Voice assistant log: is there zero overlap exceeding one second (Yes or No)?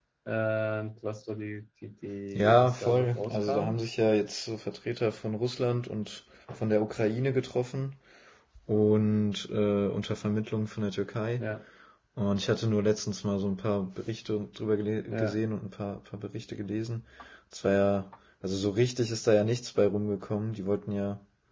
No